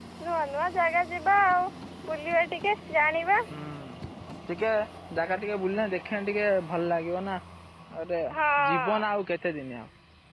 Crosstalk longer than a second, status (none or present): none